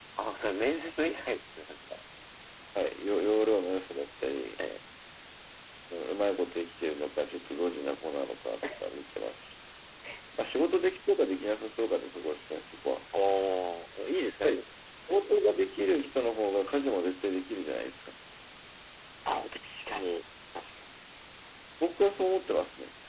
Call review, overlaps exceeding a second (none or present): none